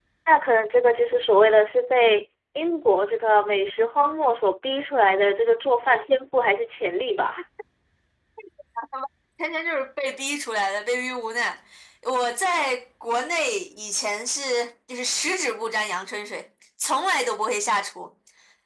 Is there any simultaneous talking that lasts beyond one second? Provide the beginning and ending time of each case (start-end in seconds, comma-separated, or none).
none